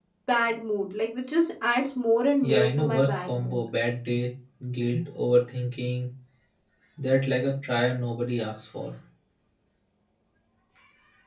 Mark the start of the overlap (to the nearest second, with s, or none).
2 s